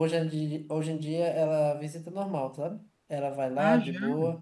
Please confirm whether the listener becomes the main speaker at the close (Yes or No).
No